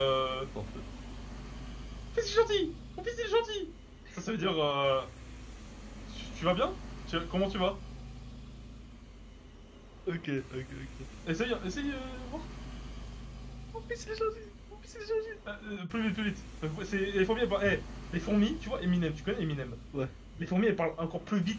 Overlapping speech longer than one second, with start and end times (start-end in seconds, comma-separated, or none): none